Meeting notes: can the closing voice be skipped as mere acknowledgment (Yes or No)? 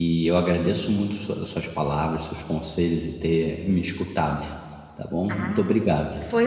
No